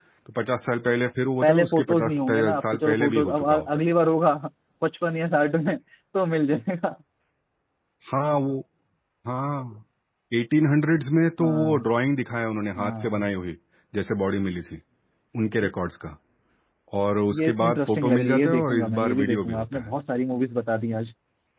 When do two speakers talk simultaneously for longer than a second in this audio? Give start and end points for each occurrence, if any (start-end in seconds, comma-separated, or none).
1.4-3.7, 17.4-19.9